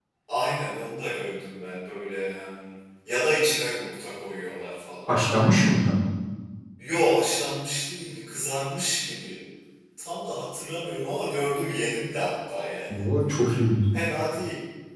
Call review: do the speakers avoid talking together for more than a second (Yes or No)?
Yes